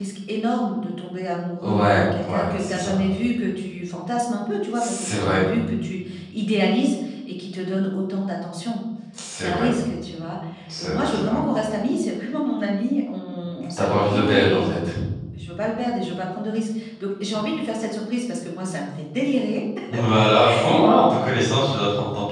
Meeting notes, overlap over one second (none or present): present